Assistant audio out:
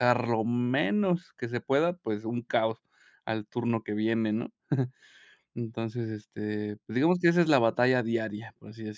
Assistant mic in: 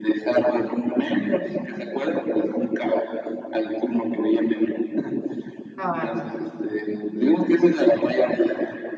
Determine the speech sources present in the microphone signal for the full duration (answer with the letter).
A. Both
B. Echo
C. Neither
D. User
A